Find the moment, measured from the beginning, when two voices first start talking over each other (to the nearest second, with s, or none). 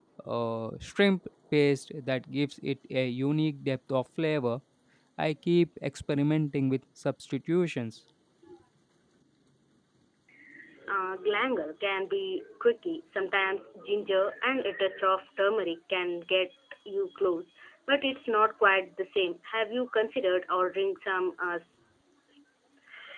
none